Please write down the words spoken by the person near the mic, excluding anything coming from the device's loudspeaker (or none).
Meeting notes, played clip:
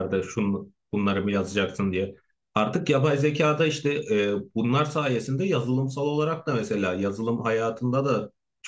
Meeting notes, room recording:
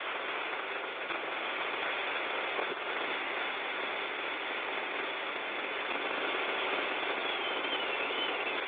none